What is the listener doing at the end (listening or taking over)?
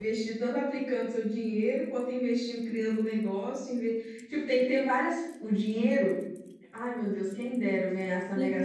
taking over